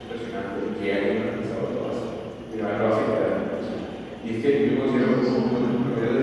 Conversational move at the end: listening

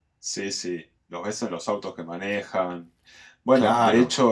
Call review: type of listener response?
listening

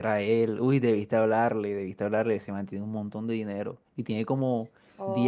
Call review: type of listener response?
listening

